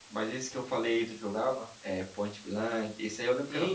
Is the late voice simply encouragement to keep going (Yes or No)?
No